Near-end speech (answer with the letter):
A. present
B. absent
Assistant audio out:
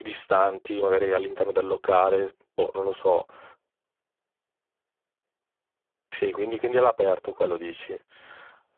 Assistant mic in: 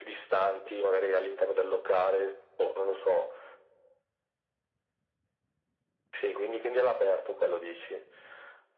B